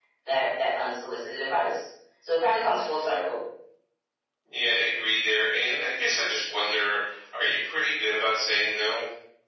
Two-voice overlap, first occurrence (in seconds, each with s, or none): none